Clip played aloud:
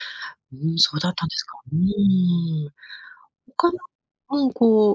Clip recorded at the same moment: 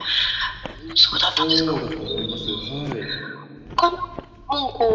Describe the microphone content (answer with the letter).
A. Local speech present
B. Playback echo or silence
A